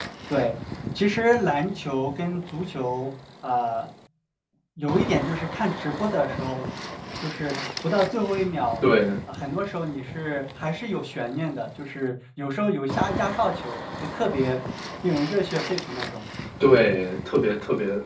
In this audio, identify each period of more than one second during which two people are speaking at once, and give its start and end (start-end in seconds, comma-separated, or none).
none